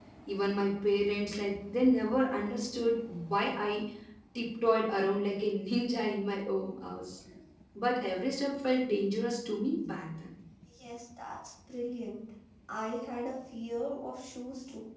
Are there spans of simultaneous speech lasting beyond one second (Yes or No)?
No